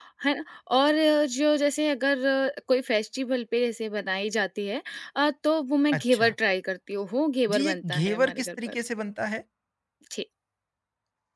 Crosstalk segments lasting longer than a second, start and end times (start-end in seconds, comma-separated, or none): 7.5-8.7